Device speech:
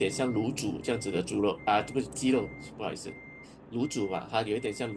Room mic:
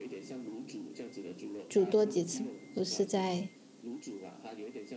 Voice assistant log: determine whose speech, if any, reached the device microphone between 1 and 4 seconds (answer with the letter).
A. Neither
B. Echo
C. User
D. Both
D